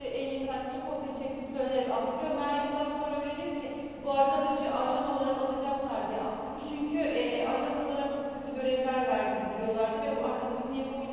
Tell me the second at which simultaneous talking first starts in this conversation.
none

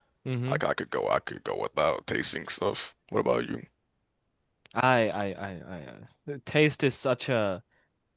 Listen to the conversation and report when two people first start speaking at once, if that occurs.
none

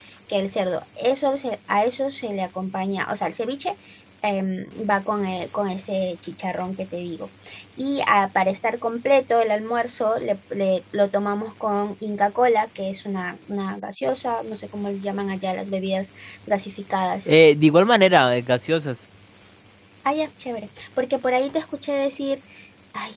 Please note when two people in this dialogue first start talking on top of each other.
none

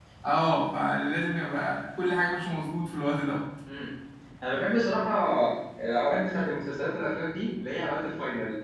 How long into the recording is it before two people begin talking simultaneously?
none

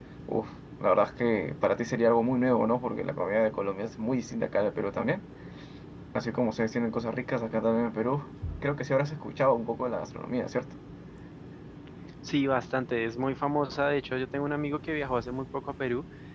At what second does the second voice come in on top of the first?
none

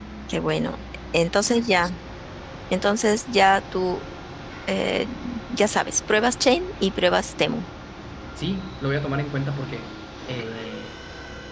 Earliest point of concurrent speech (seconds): none

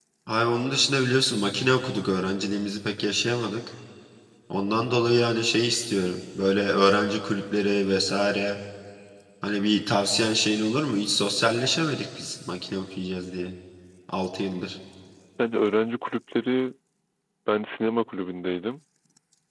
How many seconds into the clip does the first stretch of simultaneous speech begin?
none

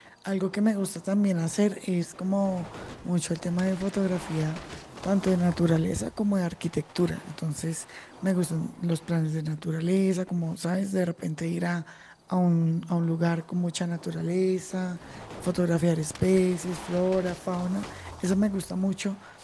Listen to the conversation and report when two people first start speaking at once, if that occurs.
none

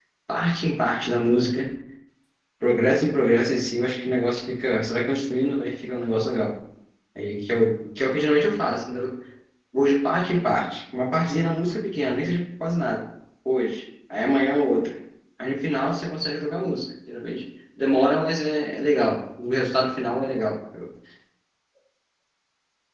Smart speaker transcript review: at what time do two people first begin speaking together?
none

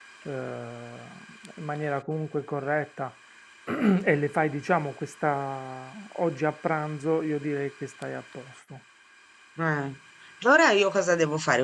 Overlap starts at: none

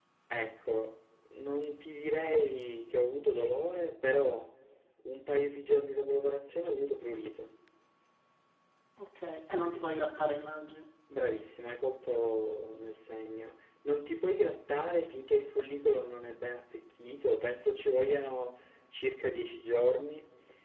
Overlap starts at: none

